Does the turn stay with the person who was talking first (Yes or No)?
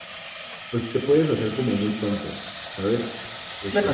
No